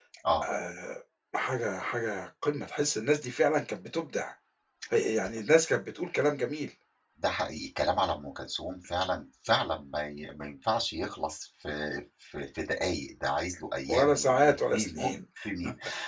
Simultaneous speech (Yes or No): Yes